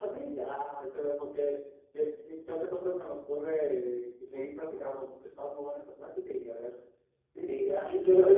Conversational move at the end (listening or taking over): taking over